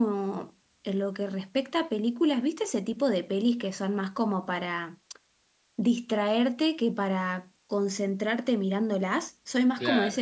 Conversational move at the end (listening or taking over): listening